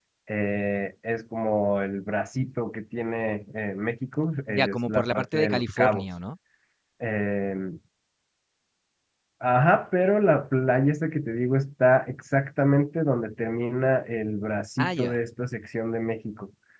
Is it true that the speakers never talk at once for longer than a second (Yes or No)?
No